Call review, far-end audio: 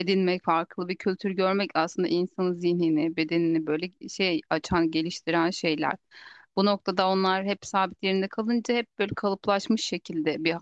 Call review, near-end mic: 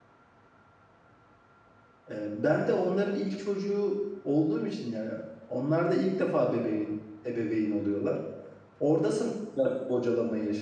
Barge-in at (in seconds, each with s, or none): 2.1 s